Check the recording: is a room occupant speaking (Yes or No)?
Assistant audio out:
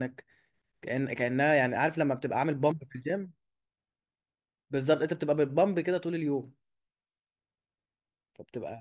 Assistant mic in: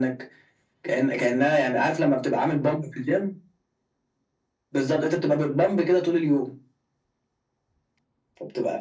No